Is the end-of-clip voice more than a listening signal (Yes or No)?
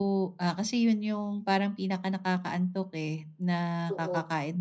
No